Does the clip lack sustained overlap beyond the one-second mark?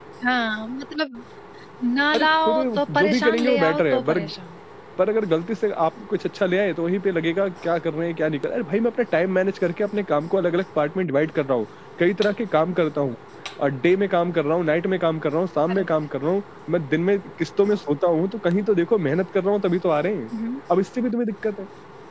No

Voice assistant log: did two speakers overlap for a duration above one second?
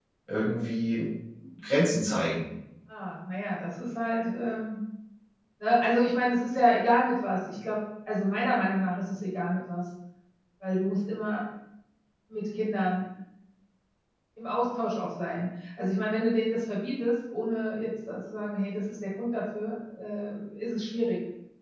No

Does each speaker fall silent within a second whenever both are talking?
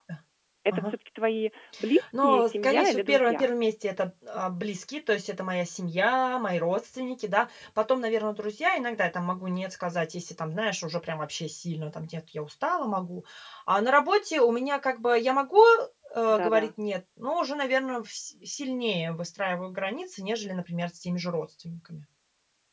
No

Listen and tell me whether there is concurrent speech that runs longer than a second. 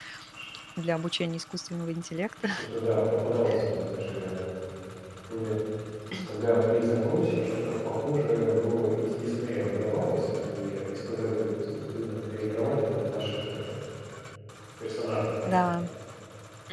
No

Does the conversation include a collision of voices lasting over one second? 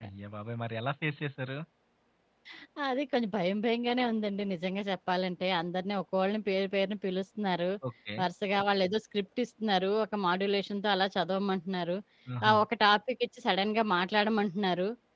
No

